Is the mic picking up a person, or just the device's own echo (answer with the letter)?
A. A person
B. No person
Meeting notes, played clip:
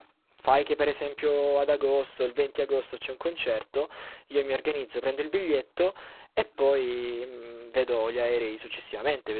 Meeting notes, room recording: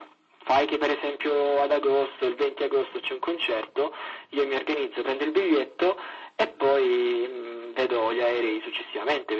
B